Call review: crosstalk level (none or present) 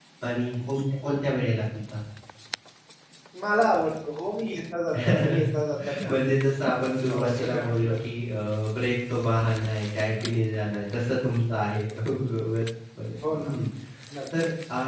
present